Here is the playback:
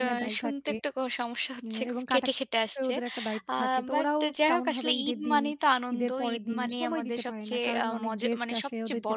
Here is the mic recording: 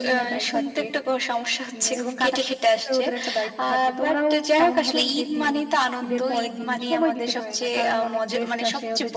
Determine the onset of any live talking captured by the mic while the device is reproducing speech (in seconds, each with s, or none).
none